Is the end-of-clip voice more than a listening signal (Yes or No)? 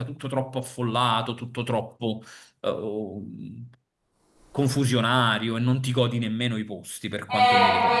Yes